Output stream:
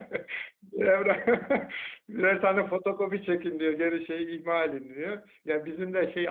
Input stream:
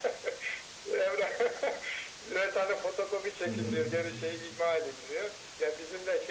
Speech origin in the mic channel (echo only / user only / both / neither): both